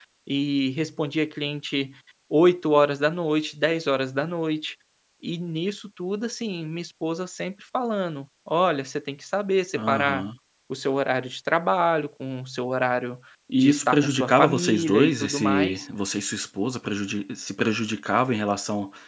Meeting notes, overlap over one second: present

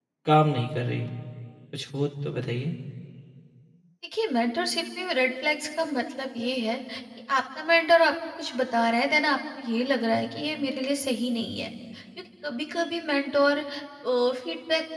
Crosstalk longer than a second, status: none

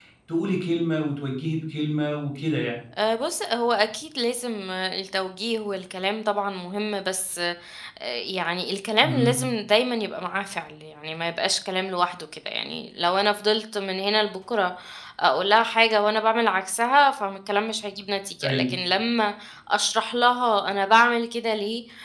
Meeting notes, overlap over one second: none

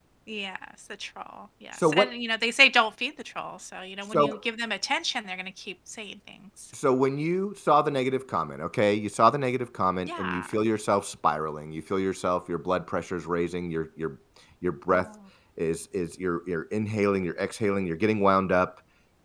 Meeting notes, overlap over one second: none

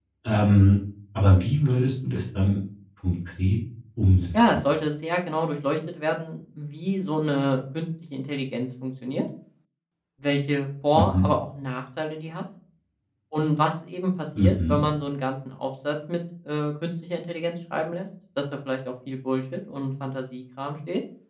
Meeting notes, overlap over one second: none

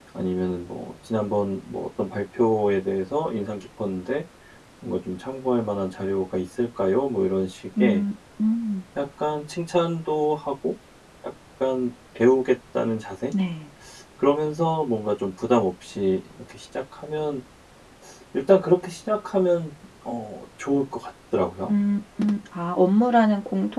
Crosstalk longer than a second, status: none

